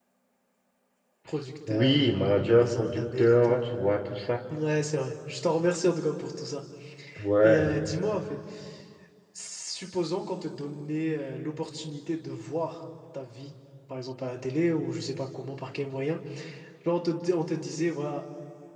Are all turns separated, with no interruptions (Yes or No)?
No